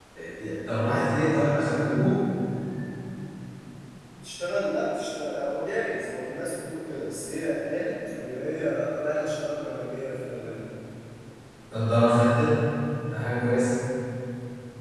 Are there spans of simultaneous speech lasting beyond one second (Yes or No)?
No